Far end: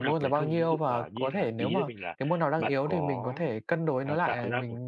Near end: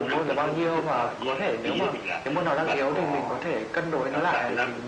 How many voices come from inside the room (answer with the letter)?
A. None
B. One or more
A